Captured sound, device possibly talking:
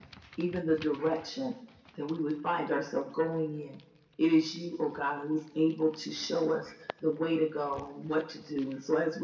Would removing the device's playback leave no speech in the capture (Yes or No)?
Yes